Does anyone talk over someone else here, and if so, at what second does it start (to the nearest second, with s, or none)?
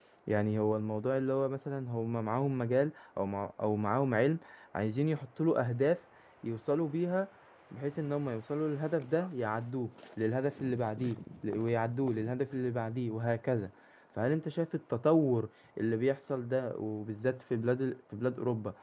none